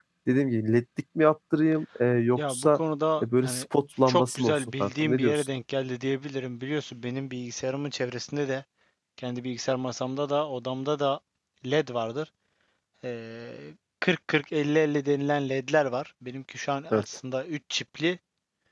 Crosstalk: present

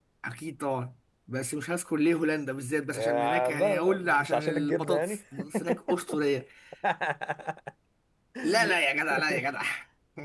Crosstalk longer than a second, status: present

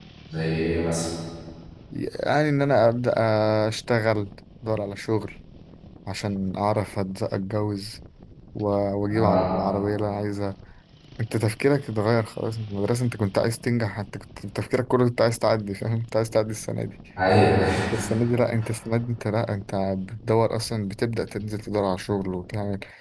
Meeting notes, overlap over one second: none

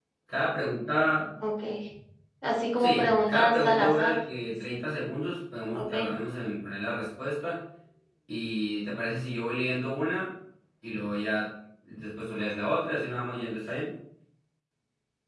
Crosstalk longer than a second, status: present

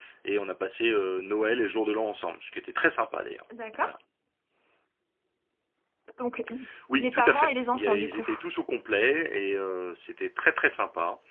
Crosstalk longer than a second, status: present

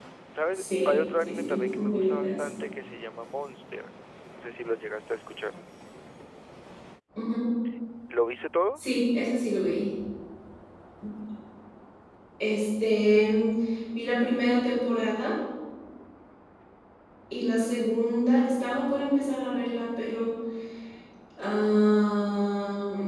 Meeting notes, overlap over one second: present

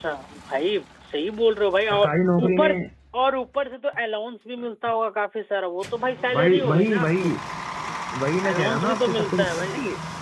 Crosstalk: present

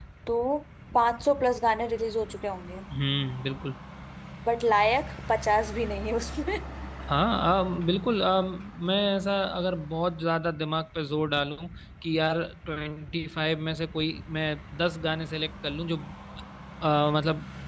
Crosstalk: none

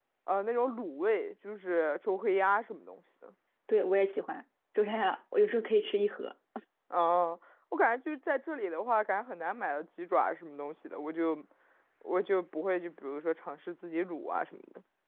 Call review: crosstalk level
none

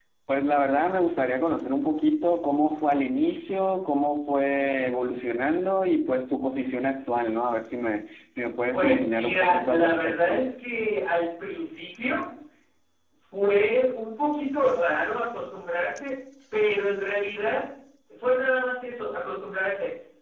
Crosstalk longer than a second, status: present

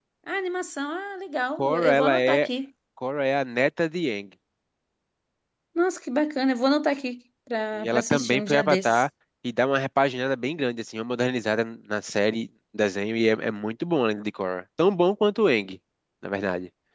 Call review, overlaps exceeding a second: present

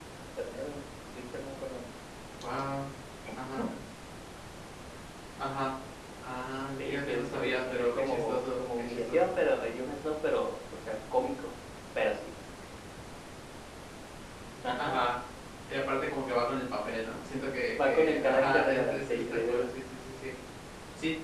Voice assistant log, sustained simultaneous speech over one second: present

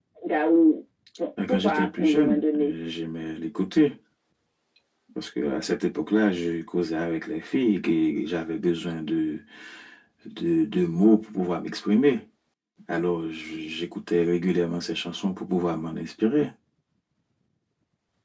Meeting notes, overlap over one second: present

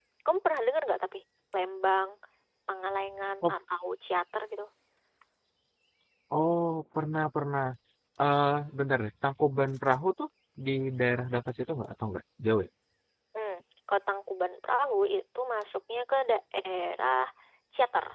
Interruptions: none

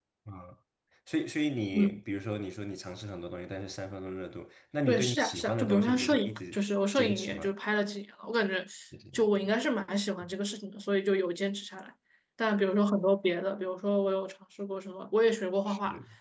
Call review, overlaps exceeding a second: present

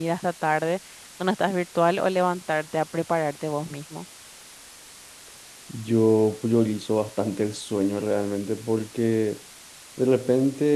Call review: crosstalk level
none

